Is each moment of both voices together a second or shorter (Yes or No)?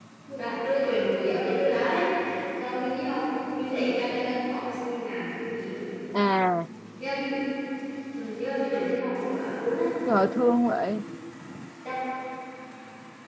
Yes